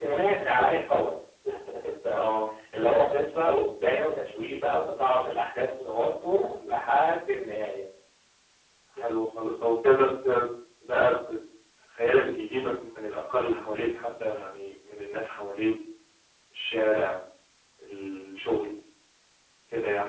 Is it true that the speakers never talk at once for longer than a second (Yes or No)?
Yes